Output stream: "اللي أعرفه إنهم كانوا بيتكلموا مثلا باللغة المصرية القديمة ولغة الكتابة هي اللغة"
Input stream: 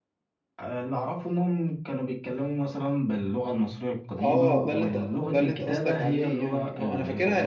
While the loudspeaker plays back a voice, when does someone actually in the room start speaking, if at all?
4.2 s

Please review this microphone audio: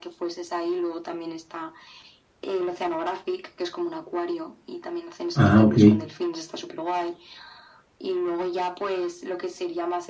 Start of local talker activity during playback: 5.3 s

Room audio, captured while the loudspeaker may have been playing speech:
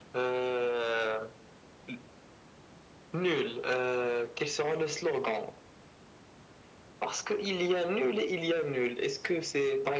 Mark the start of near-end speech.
none

